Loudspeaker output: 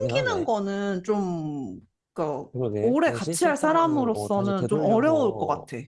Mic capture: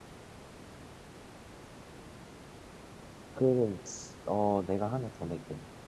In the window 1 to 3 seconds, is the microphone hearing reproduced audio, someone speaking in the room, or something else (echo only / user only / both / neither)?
neither